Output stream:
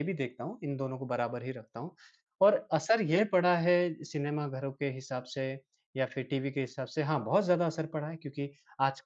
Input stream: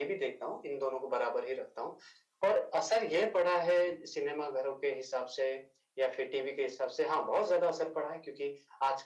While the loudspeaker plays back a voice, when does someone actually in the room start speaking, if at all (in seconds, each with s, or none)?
none